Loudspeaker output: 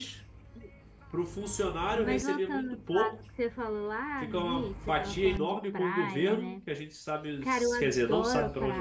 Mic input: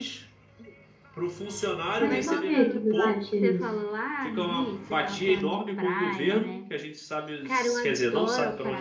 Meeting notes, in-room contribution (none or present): present